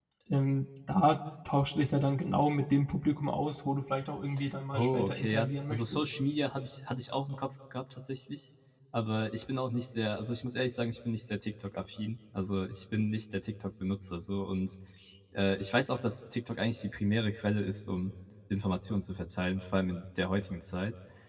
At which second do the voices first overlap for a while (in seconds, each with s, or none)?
4.7 s